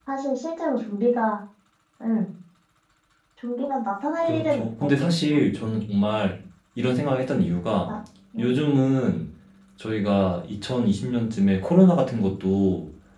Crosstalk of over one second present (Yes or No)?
Yes